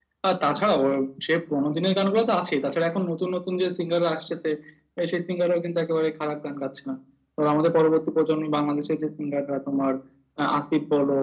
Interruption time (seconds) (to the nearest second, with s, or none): none